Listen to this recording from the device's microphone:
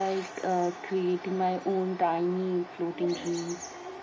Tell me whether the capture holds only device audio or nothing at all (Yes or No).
No